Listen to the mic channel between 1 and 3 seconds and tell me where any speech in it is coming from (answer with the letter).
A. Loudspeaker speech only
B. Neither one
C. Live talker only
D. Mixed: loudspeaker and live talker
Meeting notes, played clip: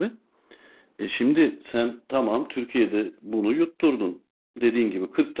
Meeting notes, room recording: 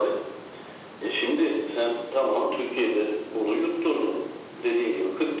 A